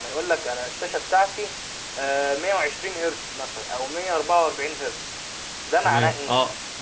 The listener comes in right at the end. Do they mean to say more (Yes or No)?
Yes